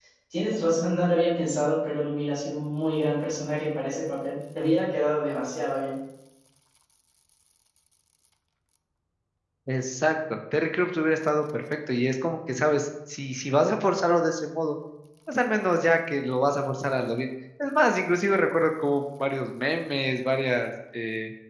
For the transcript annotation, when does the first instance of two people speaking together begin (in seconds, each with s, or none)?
none